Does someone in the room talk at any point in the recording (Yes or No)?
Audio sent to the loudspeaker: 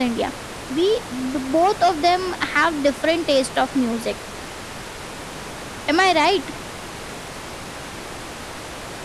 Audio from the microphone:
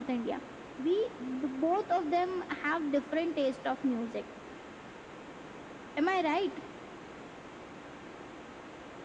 No